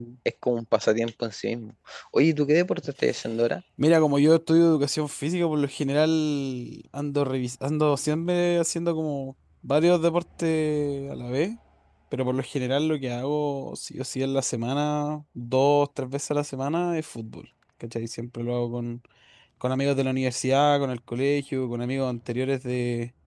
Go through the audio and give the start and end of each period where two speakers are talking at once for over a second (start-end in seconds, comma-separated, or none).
none